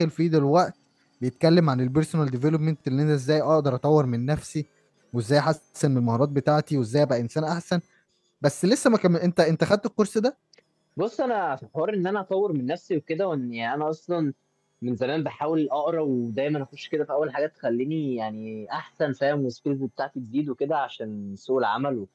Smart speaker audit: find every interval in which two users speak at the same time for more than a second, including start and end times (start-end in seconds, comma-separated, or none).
none